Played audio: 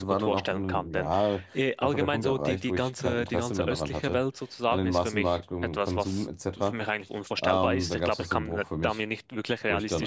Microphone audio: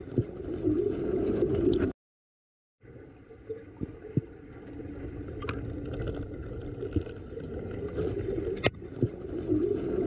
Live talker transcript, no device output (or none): none